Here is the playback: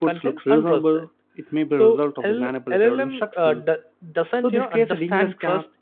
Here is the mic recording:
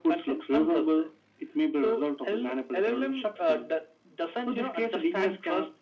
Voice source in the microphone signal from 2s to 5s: echo only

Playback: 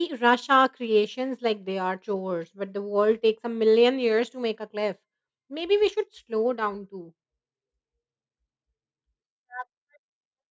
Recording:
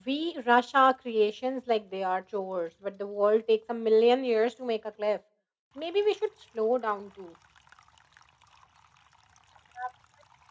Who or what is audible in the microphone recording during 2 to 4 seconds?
echo only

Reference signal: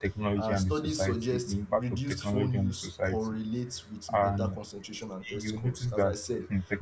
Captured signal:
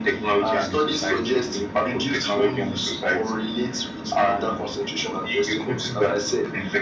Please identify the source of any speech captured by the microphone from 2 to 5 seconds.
echo only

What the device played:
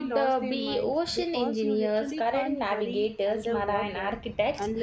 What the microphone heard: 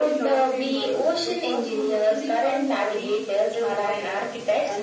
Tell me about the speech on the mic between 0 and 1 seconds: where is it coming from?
echo only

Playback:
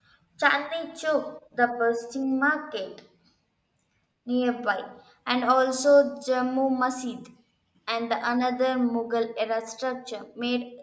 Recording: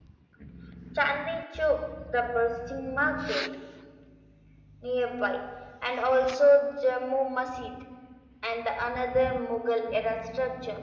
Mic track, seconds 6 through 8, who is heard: echo only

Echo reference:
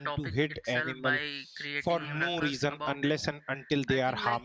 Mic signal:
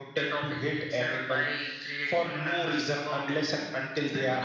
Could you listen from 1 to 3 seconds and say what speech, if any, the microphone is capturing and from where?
echo only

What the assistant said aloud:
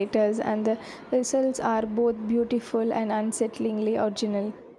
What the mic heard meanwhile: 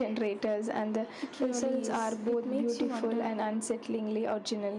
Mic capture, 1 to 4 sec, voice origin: both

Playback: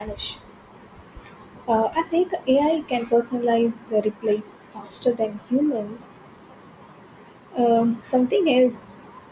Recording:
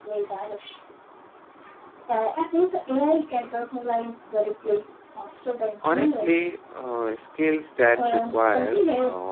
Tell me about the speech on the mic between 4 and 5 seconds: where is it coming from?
echo only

